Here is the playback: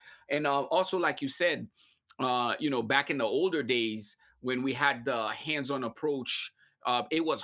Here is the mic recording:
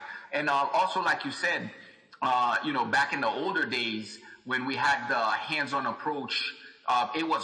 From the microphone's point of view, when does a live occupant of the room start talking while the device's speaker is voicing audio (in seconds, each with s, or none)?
none